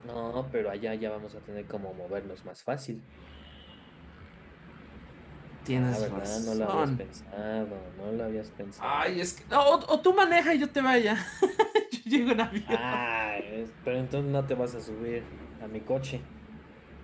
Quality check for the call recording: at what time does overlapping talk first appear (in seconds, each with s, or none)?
5.7 s